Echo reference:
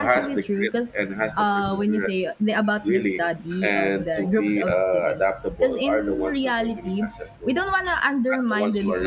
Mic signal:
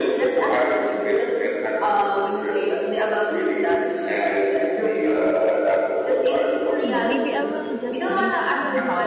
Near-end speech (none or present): present